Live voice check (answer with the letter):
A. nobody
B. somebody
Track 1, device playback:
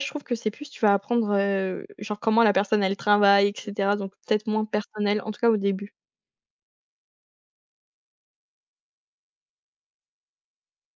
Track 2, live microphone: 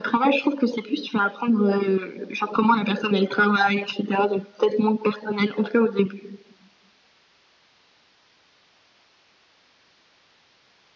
A